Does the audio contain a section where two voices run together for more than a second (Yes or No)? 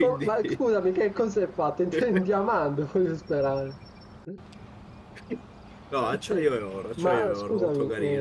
Yes